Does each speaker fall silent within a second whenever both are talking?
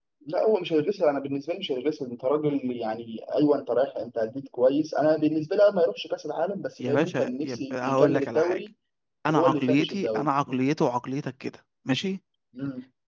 No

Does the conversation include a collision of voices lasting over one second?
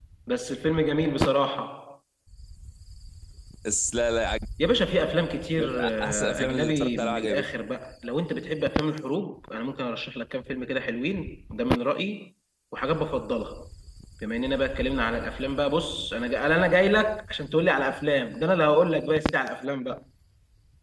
Yes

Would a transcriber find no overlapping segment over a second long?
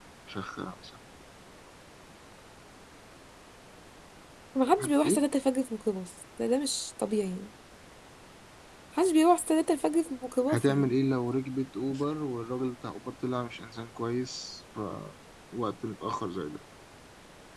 Yes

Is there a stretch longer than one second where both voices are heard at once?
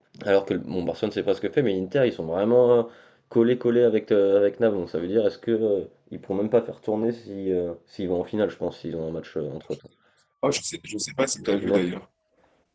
No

